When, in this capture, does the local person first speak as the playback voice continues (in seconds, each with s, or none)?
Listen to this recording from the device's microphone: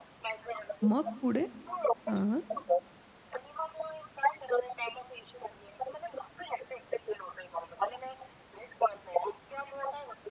0.8 s